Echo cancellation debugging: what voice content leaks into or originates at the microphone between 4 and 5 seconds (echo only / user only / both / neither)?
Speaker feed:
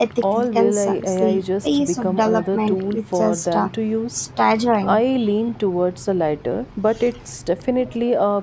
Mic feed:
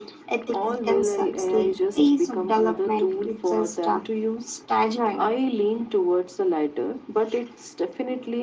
echo only